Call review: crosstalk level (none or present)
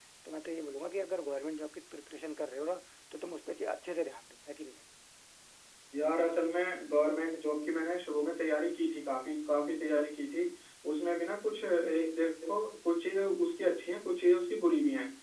none